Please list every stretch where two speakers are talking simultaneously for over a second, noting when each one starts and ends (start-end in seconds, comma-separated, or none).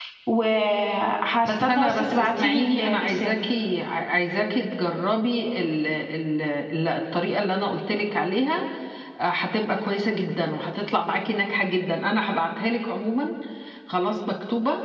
1.4-3.4